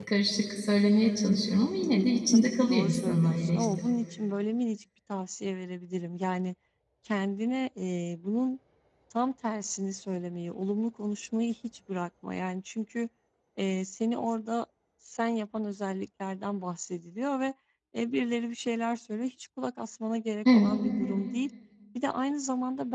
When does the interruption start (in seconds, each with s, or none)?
2.3 s